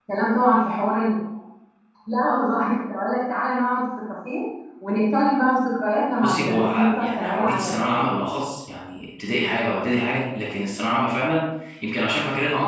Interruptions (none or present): present